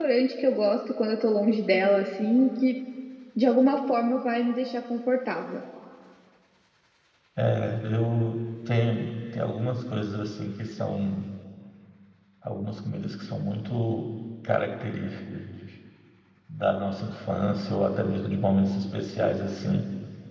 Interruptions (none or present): none